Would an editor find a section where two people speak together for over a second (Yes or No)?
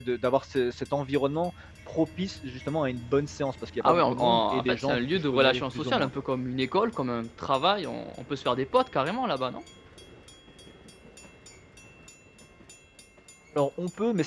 Yes